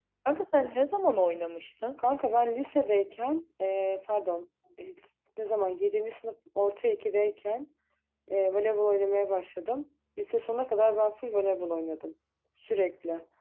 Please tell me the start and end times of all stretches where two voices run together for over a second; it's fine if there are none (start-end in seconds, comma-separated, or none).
none